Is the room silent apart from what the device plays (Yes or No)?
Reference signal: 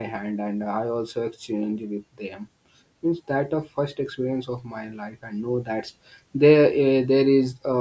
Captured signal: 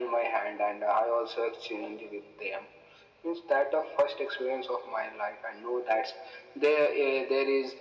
Yes